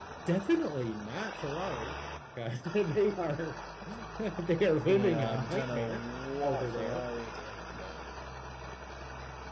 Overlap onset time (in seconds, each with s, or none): 4.8 s